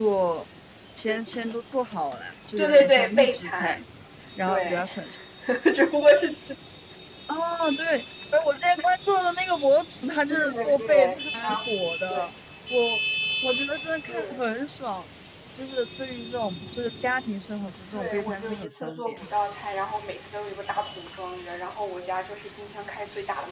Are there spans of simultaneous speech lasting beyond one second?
Yes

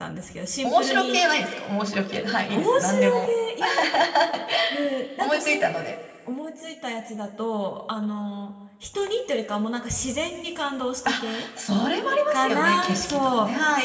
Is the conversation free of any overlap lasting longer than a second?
No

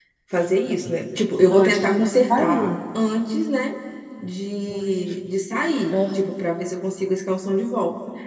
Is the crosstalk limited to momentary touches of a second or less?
No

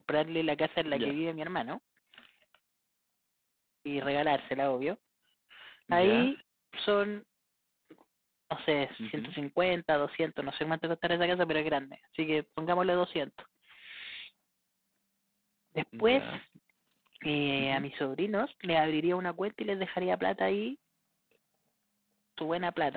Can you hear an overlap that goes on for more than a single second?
No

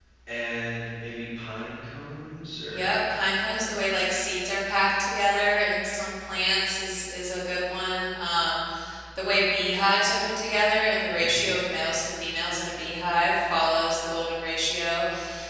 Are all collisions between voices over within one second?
Yes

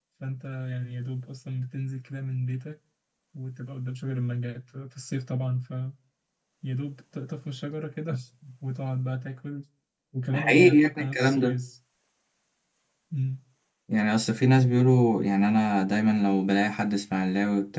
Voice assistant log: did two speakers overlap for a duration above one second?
Yes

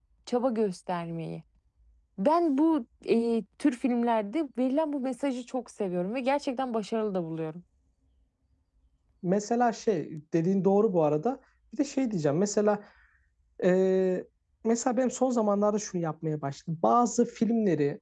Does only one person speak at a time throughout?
Yes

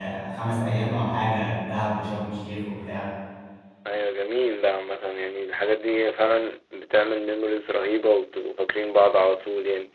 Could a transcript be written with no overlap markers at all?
Yes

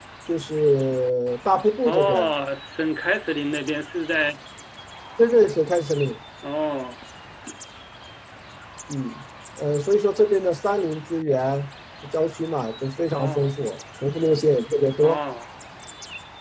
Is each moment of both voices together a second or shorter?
Yes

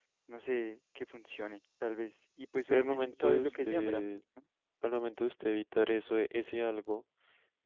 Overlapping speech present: Yes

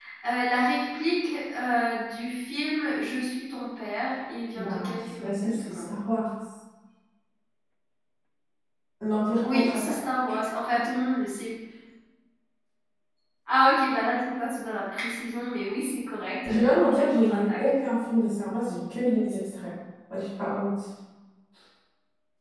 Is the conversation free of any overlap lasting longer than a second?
No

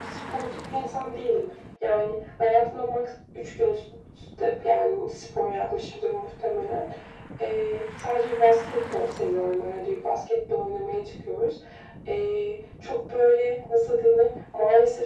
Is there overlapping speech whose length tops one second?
No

